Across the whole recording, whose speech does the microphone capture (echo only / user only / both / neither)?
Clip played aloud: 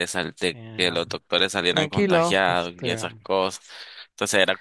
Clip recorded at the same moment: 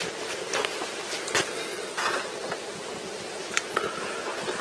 neither